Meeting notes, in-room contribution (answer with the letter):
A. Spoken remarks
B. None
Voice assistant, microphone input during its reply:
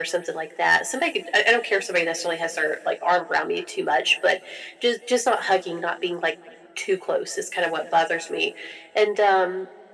B